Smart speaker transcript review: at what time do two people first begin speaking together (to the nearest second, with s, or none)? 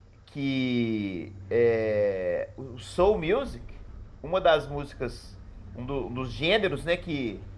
none